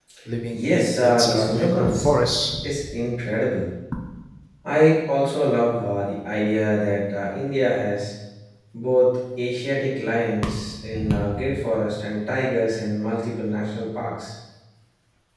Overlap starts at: 0.7 s

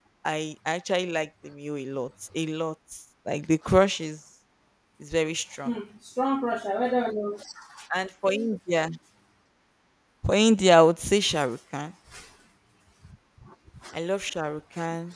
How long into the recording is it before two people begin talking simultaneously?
none

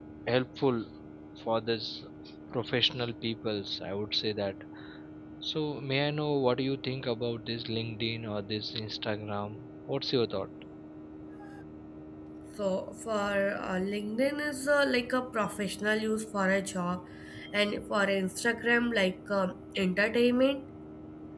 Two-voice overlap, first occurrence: none

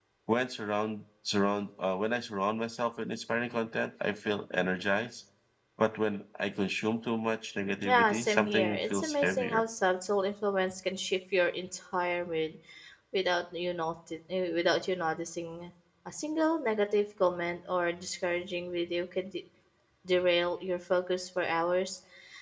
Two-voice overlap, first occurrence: 7.8 s

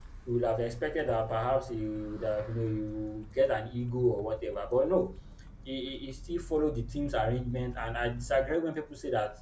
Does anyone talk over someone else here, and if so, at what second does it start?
none

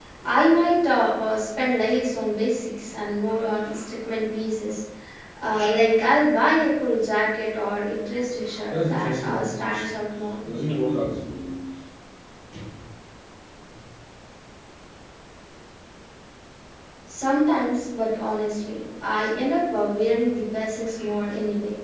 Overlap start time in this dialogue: 8.7 s

